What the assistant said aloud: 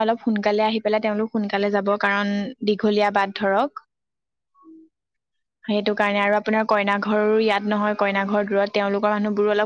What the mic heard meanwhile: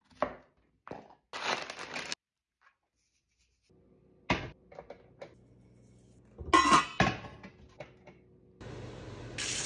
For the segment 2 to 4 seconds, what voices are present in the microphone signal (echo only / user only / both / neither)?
neither